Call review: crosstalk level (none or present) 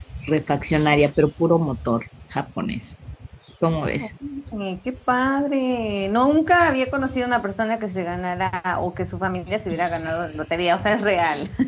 none